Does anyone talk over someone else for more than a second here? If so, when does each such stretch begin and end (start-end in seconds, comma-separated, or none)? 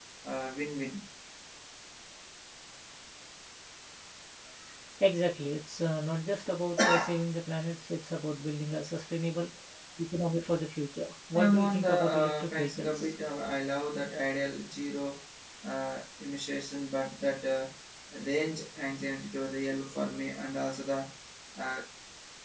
11.4-13.1